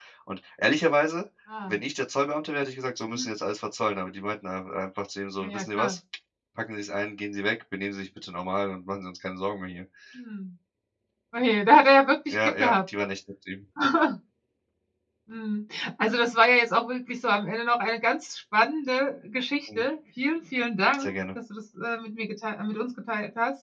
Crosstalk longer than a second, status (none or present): none